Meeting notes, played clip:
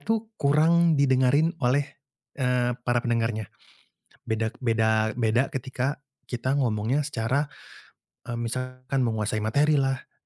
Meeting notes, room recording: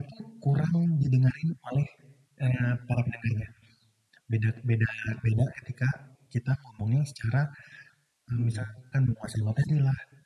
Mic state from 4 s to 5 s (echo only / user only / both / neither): echo only